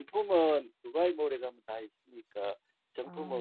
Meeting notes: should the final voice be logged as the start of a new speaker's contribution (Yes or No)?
No